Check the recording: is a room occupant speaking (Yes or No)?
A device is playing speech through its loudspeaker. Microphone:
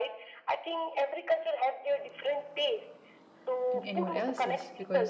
Yes